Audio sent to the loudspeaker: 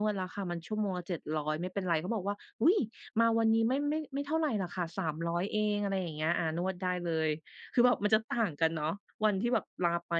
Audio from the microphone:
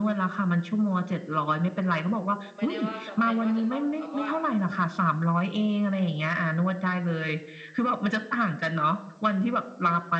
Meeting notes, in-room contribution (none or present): present